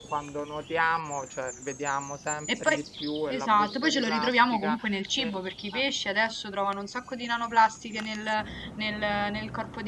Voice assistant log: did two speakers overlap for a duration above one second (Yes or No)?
Yes